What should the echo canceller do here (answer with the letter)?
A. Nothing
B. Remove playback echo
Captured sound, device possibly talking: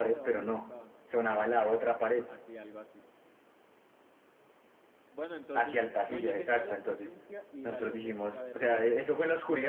B